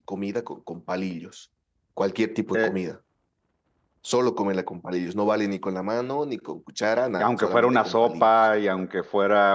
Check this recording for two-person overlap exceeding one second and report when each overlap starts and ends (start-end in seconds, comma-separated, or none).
7.2-8.5